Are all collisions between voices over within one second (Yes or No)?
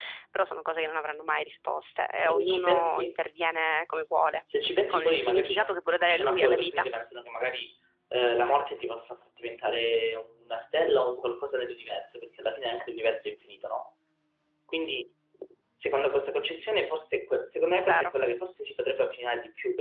No